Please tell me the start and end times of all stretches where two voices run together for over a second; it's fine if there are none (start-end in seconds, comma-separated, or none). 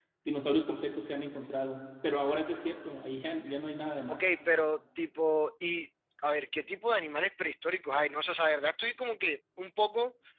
none